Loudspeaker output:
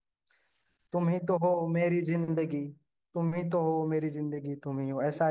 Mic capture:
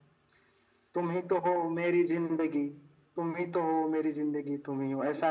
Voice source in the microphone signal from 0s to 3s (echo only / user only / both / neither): echo only